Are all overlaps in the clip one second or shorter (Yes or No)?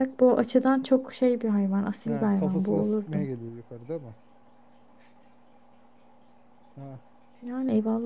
No